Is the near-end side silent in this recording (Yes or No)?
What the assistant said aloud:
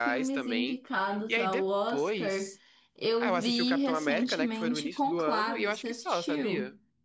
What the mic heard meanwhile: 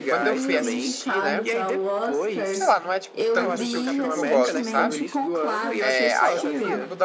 No